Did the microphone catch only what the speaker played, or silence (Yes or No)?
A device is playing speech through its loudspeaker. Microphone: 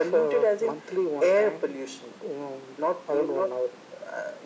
Yes